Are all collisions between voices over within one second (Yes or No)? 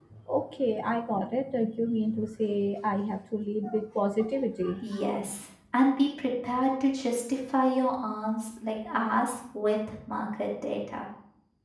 Yes